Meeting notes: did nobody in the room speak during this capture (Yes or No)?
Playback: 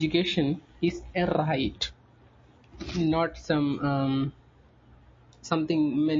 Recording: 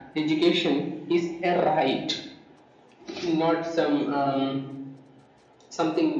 Yes